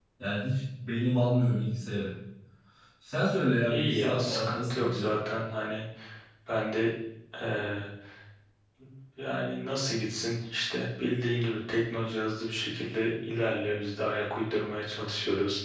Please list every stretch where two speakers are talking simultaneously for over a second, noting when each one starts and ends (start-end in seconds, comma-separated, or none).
3.7-5.1